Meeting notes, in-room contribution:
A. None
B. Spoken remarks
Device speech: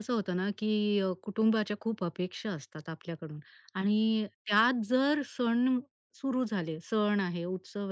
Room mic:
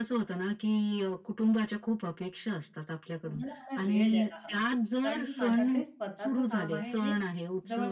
B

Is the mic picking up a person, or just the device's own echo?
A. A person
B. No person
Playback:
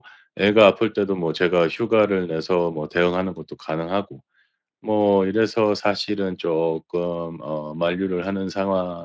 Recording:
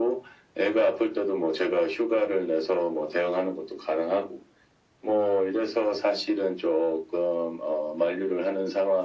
B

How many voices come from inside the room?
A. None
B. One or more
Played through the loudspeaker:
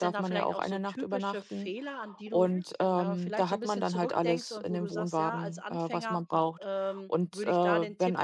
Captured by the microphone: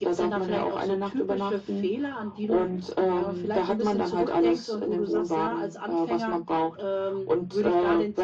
A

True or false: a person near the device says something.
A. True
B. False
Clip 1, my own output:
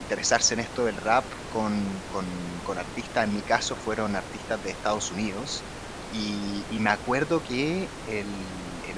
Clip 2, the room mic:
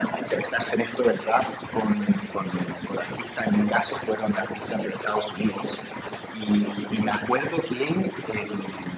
B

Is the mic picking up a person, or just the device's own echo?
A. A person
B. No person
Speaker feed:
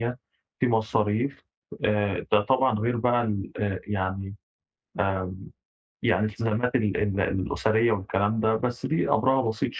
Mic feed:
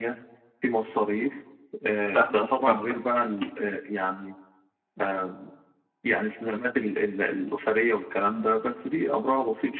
A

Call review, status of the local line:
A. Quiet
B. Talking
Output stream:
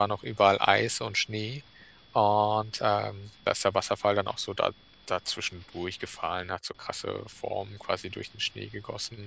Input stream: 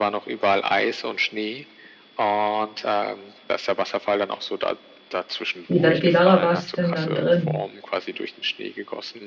B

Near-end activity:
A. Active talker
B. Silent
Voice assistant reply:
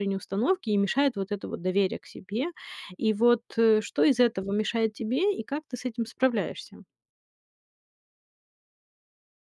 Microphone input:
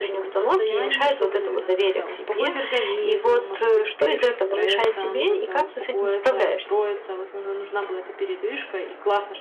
A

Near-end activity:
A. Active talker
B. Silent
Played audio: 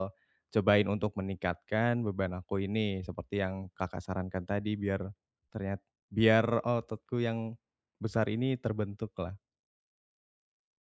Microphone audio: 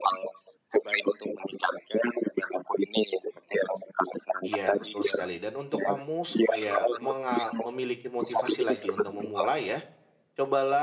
A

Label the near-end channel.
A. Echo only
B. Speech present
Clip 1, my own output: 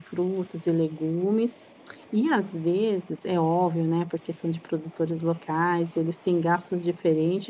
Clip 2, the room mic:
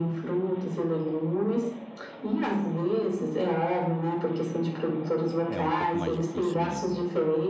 B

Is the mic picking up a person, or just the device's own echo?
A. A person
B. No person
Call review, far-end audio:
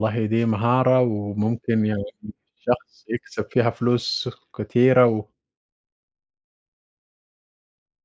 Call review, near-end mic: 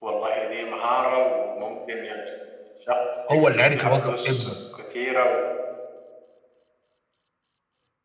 A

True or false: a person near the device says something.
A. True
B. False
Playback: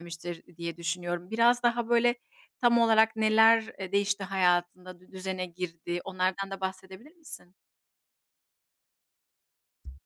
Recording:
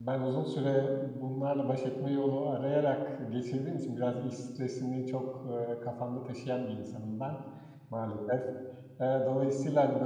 A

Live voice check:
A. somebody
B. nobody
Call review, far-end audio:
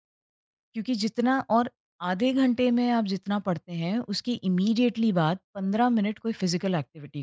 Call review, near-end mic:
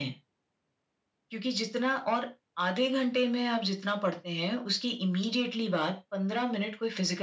B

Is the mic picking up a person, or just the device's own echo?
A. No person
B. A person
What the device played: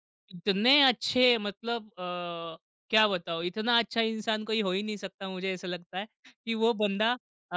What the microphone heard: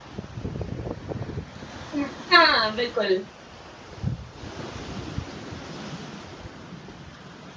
B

